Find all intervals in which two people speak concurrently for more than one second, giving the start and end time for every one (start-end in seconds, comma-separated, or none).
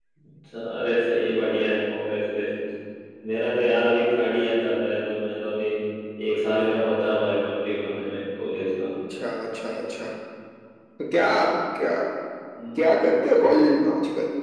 none